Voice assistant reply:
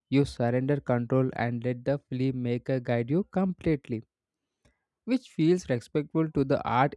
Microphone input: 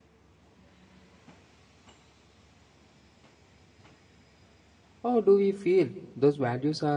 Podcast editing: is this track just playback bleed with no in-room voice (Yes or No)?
No